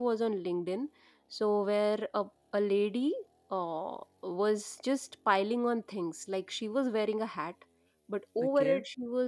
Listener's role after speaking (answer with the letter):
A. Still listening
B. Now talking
A